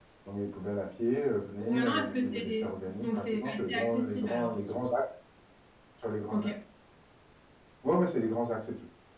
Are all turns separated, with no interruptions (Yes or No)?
No